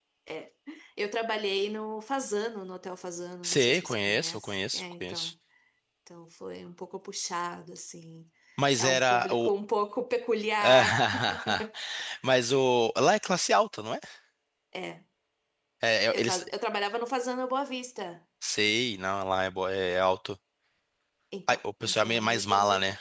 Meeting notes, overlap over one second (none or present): present